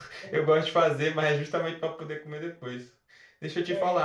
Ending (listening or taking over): listening